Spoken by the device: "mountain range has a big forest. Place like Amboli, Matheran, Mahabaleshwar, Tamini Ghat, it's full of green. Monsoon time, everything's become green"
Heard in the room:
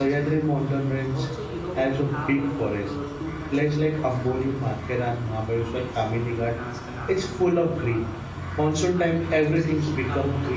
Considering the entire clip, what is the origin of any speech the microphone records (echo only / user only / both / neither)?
both